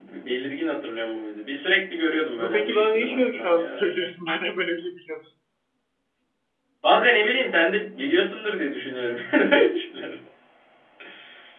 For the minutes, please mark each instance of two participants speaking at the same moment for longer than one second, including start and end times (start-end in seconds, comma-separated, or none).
2.4-3.8